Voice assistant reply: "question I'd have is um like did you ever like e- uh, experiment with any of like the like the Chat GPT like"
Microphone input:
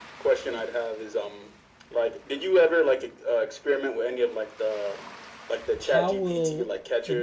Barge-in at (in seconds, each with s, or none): 5.8 s